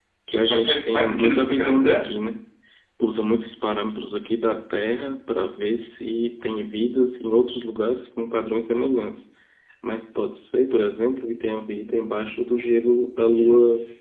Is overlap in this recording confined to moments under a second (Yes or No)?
No